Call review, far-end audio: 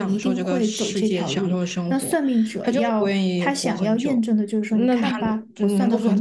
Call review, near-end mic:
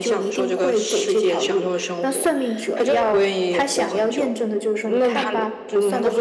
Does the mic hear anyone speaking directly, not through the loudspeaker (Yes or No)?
No